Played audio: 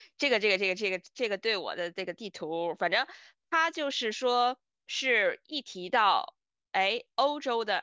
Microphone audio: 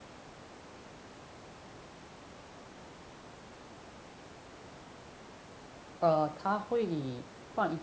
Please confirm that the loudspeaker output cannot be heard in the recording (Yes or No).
Yes